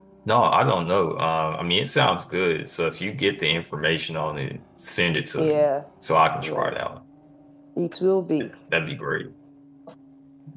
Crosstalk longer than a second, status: none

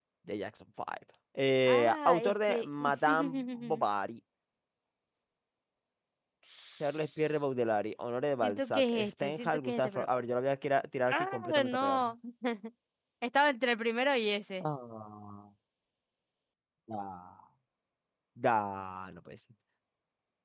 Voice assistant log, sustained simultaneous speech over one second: present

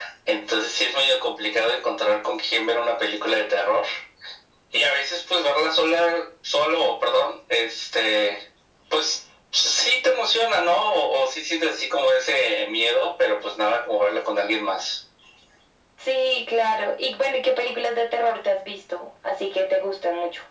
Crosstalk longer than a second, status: none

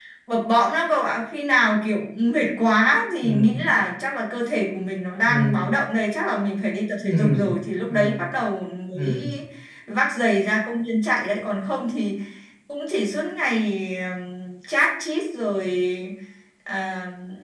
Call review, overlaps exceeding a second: none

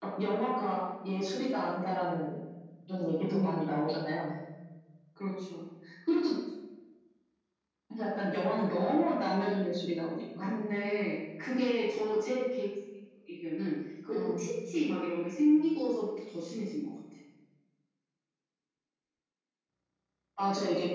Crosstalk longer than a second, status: none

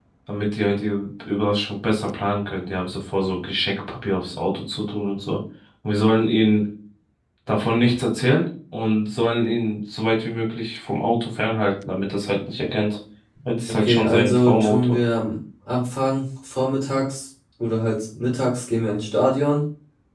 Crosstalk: present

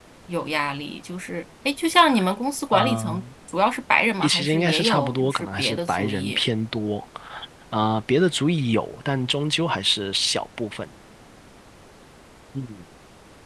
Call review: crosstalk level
present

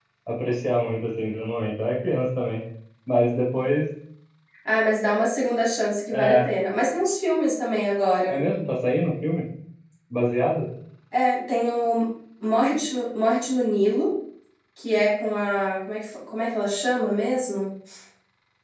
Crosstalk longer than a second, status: none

